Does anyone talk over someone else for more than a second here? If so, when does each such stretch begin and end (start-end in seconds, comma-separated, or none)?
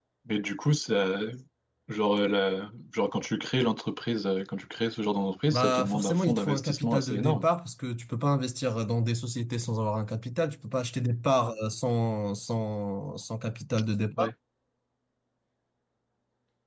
5.5-7.5